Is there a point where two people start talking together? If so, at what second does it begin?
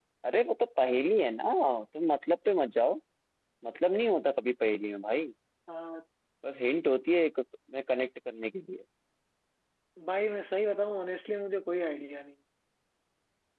none

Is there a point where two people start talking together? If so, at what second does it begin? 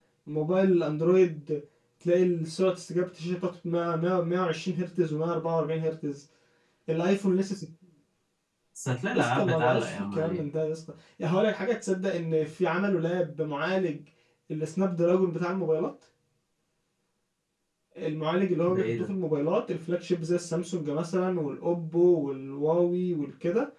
9.1 s

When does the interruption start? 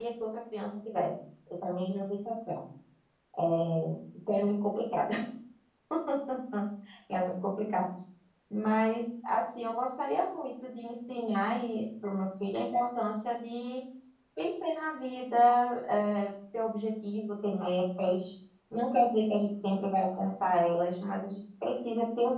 none

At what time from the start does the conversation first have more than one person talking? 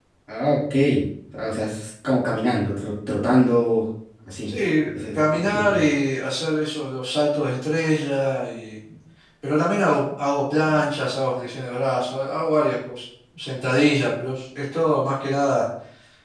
4.5 s

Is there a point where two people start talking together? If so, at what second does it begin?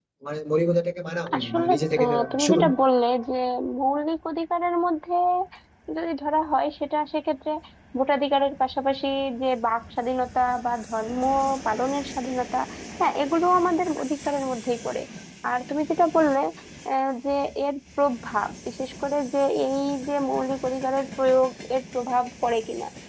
1.3 s

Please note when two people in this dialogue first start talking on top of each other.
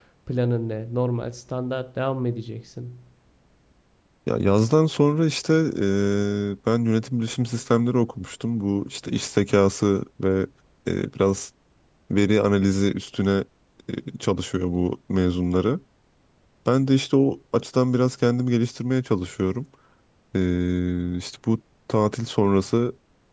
none

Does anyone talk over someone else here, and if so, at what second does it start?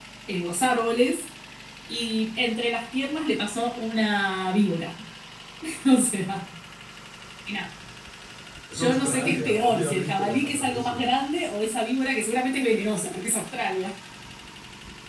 8.7 s

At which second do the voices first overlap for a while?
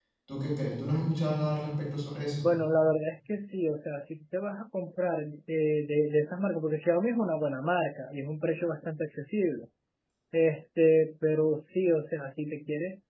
none

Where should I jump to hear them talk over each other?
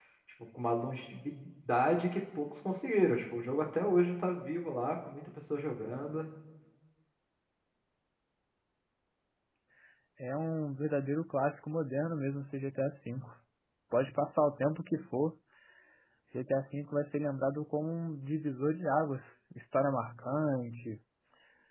none

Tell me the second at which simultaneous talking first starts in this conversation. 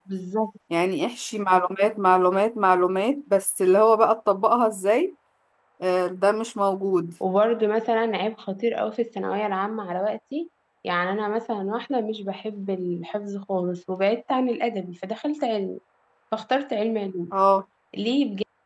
none

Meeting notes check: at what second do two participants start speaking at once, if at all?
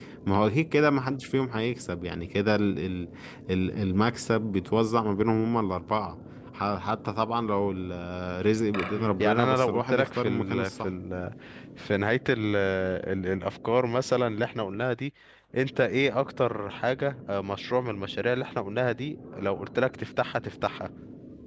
8.9 s

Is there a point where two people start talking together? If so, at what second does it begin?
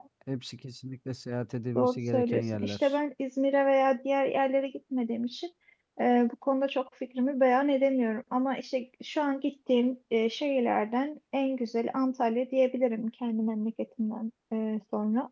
1.8 s

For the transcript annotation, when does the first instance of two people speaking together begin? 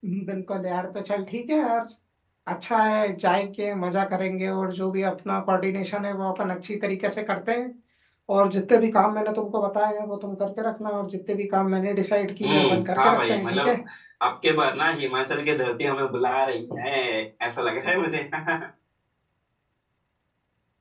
12.4 s

